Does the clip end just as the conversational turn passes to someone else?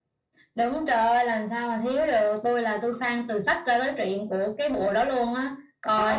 Yes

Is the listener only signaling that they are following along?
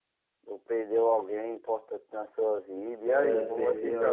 No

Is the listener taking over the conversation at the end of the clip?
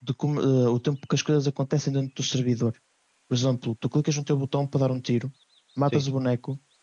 No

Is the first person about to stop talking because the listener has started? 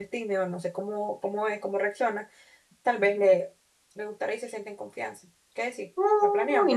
Yes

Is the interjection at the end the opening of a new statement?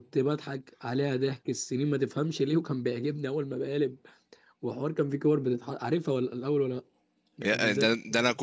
Yes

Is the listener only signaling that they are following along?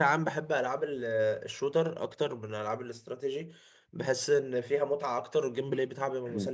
Yes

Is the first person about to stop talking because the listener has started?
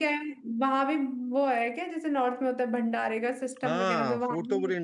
Yes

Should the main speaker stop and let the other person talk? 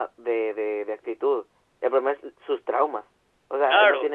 No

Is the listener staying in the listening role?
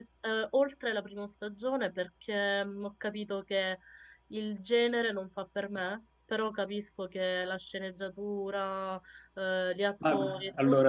No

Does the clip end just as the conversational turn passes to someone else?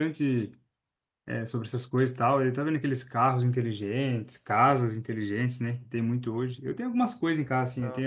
No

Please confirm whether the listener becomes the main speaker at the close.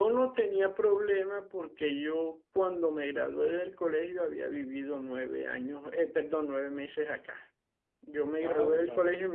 No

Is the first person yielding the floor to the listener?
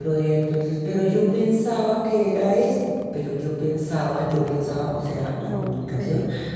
No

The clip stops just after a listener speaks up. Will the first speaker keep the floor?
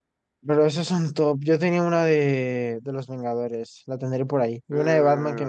No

